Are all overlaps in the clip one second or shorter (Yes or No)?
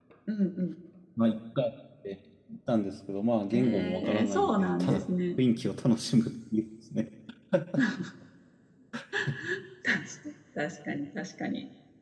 No